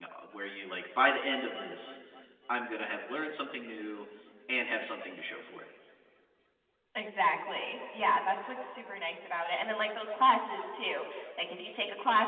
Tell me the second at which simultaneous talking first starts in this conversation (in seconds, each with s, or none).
none